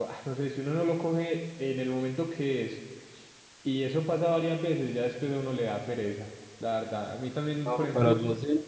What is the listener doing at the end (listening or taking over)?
taking over